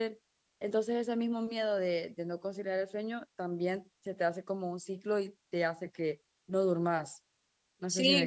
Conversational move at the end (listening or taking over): taking over